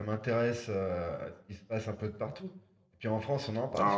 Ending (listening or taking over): listening